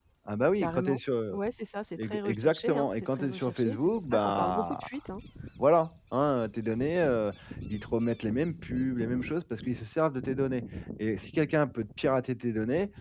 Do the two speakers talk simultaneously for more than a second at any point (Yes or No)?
Yes